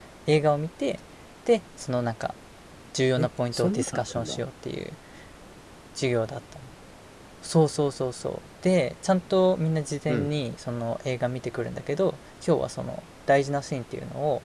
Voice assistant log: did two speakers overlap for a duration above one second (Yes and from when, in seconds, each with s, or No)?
Yes, from 3.2 s